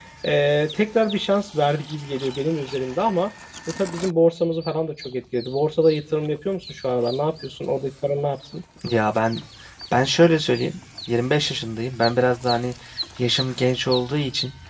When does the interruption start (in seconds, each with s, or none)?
none